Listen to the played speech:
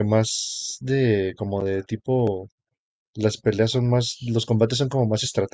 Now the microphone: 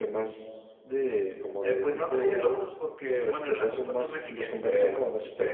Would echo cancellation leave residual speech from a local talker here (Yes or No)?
Yes